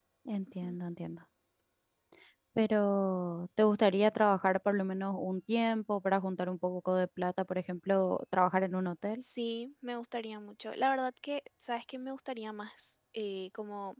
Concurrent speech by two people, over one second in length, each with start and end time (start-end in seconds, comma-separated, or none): none